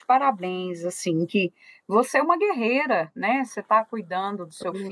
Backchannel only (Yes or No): Yes